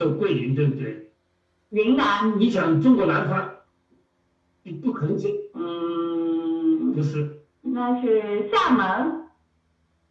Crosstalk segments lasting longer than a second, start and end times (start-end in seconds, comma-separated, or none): none